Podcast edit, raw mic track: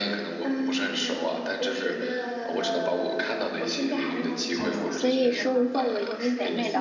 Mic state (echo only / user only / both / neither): both